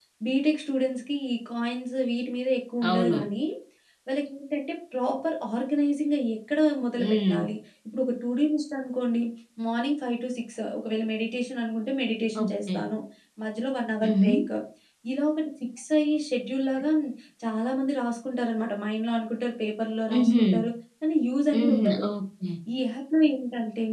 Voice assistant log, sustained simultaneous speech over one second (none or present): none